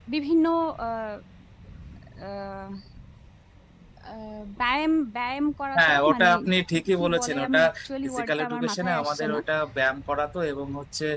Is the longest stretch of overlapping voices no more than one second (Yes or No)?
No